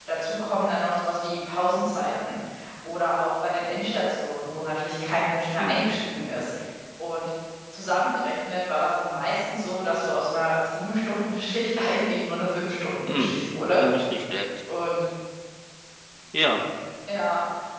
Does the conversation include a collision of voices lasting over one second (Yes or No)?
No